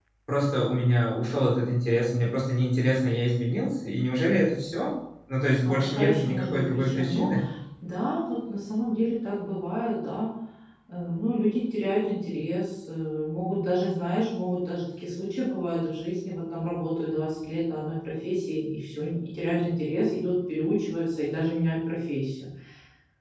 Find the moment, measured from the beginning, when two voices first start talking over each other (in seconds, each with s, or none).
5.7 s